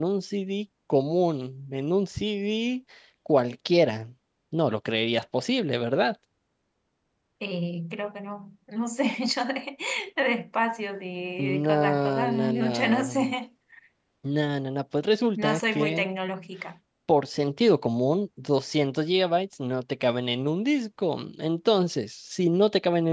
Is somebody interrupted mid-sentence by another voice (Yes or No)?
Yes